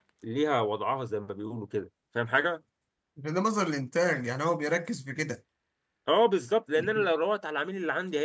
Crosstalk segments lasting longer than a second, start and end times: none

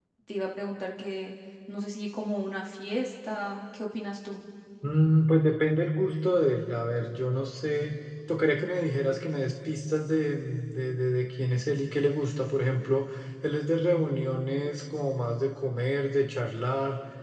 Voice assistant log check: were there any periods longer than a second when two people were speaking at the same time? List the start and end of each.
none

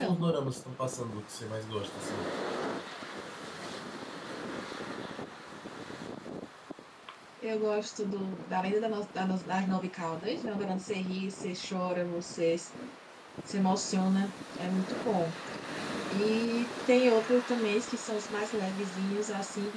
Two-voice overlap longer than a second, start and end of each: none

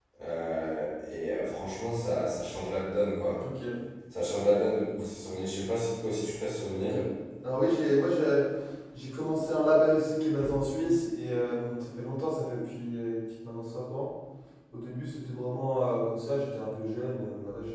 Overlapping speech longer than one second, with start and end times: none

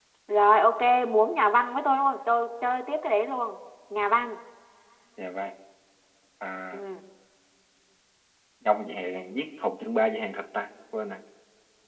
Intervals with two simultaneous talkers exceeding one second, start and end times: none

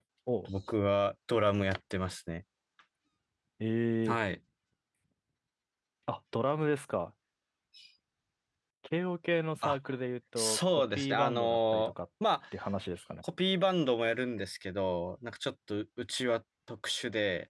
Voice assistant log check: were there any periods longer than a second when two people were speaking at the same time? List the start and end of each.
10.4-11.9

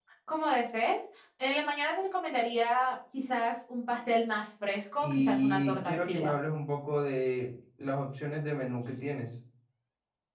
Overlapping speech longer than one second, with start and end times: 5.0-6.3

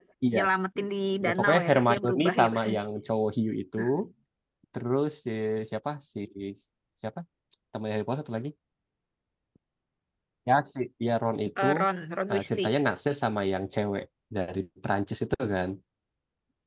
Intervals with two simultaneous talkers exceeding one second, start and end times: 1.2-2.8

